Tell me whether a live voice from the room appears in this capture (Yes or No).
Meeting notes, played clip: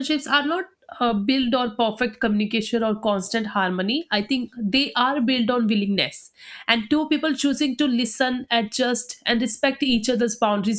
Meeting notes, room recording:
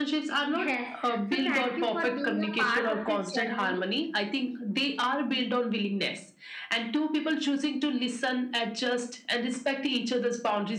Yes